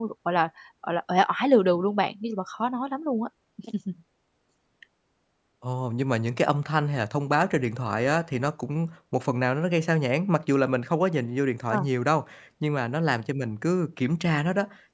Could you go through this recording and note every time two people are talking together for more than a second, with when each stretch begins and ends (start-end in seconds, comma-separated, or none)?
none